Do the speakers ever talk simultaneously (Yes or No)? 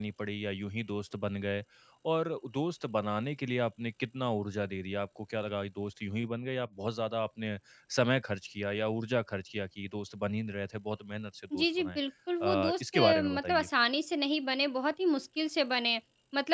Yes